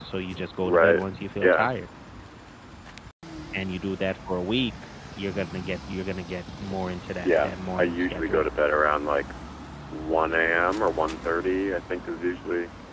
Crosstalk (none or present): present